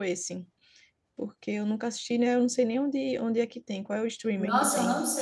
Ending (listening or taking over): taking over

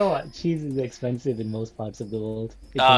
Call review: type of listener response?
taking over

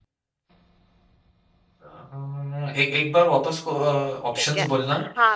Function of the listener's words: taking over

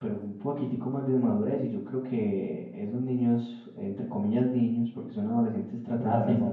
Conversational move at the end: taking over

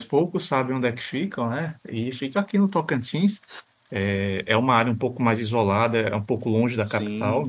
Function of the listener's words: listening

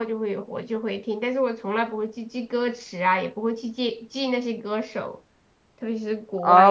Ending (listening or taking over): taking over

